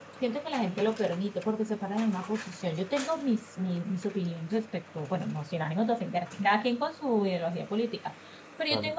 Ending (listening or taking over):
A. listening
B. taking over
A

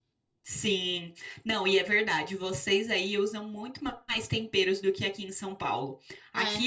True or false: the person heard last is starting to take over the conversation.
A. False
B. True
A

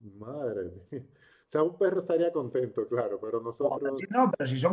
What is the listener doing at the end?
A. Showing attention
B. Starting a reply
B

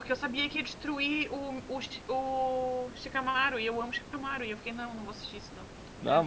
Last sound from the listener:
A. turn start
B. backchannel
B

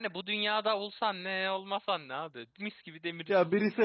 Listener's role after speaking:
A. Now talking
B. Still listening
A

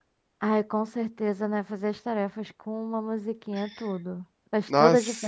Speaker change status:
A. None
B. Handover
B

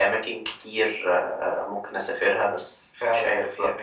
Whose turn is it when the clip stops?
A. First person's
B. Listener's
B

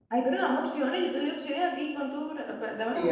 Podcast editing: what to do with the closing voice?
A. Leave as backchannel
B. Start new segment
B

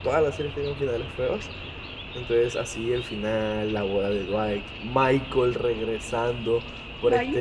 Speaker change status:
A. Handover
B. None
B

